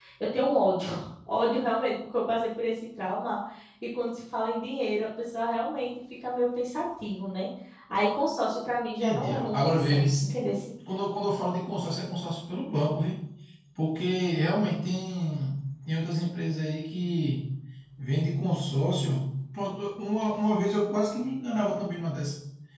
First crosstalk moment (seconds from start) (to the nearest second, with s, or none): 9 s